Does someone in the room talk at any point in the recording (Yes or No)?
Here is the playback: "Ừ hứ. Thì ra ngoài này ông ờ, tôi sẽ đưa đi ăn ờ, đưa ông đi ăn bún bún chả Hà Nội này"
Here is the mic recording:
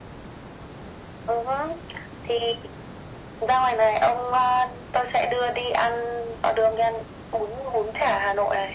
No